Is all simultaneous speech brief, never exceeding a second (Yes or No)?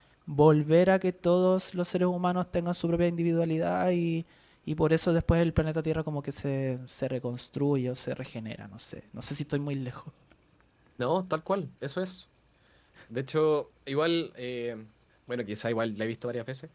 Yes